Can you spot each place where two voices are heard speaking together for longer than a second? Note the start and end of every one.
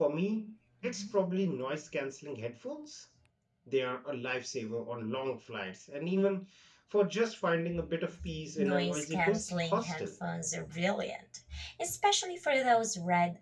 8.6-10.1

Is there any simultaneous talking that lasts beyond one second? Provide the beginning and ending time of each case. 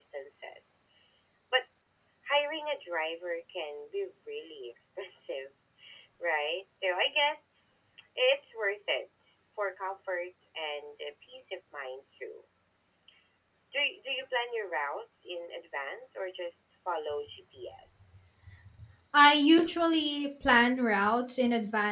none

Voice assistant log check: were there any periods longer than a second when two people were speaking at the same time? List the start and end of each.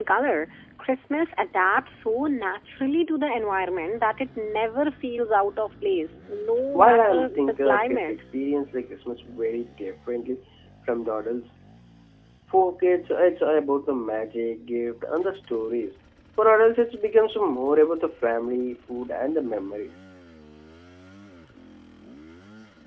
6.7-8.1

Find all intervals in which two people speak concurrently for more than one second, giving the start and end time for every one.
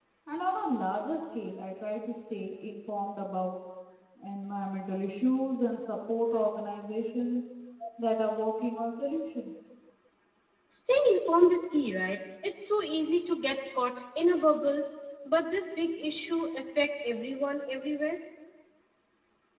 none

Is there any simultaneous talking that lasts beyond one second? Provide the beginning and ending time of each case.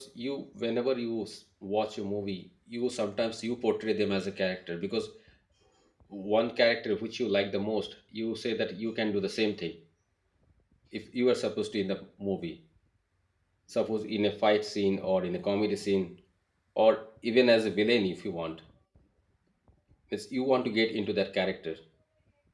none

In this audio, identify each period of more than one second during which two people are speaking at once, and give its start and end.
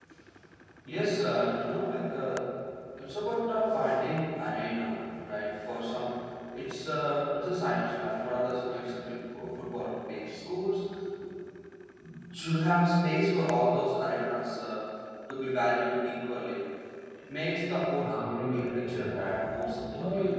18.0-19.4

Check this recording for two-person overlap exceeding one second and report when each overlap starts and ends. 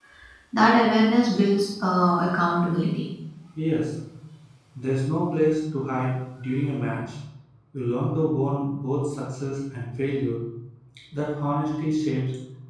none

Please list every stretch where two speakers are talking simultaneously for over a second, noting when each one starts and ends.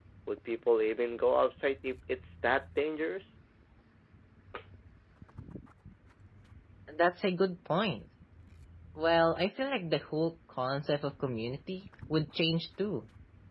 none

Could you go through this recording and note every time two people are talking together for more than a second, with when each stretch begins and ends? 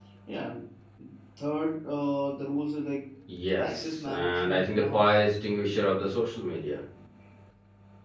3.6-5.2

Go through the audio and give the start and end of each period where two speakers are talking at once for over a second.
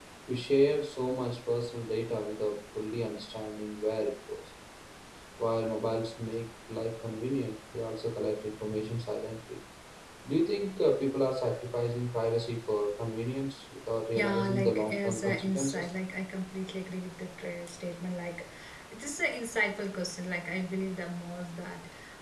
14.2-15.9

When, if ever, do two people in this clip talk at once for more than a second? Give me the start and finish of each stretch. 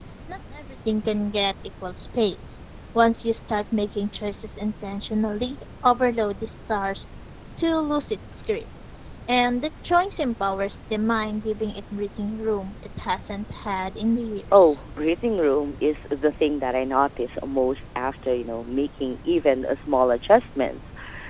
none

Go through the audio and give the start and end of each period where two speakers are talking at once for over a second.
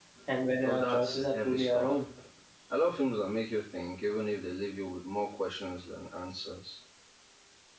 0.6-2.0

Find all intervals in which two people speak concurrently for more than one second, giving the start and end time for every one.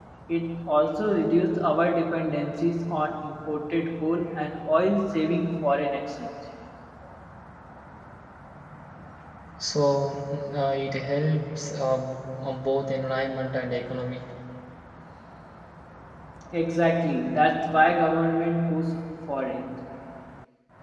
none

